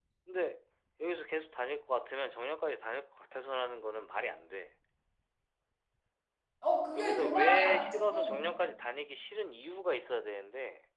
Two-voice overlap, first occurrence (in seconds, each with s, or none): 7.0 s